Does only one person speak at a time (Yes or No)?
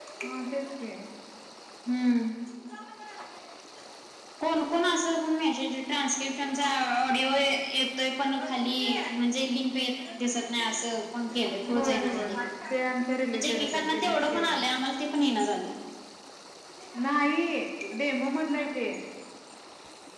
No